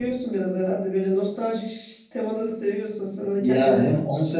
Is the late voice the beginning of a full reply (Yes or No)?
Yes